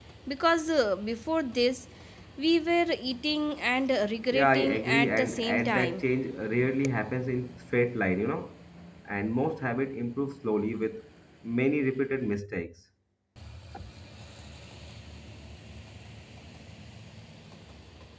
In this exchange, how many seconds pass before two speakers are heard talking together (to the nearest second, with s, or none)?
4 s